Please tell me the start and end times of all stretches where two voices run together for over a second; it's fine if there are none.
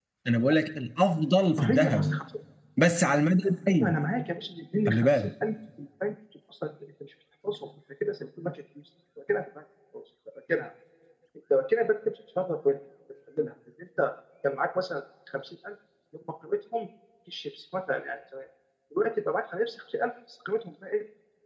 none

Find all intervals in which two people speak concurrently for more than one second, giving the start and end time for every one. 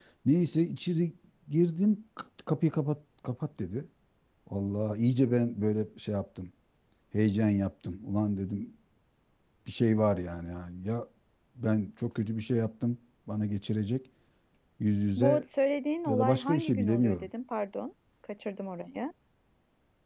16.1-17.3

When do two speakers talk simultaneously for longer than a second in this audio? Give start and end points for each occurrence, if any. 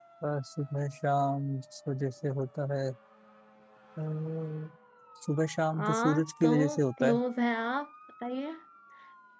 5.7-7.2

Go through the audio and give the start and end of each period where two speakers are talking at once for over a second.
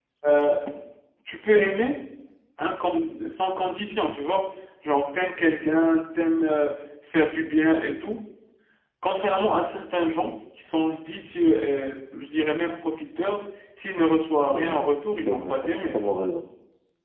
14.5-16.0

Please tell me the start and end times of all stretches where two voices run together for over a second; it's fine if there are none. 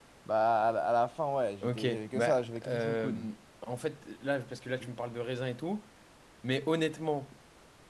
1.6-3.3

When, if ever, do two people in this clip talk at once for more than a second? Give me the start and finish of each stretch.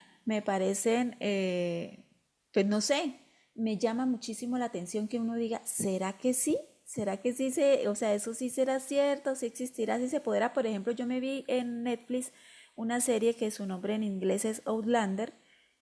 none

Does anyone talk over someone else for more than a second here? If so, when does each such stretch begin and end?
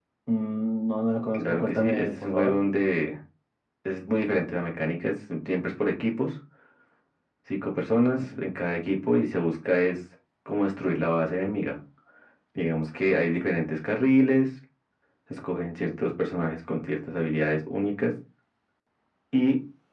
1.3-2.5

